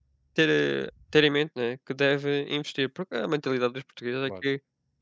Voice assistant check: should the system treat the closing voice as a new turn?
No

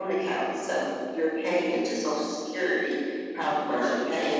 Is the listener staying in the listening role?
Yes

